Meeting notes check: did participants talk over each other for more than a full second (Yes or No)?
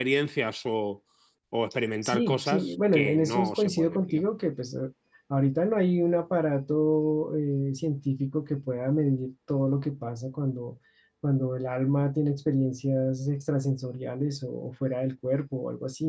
Yes